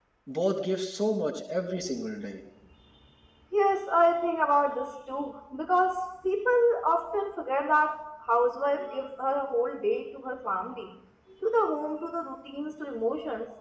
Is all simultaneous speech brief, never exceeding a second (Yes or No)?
Yes